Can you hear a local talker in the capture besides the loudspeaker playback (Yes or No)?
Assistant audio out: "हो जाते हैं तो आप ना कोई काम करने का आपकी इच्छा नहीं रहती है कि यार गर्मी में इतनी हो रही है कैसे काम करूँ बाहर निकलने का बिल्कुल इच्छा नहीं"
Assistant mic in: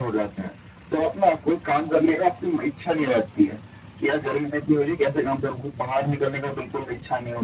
No